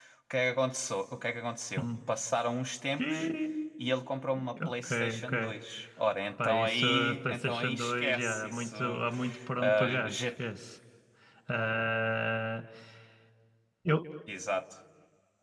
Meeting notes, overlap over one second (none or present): present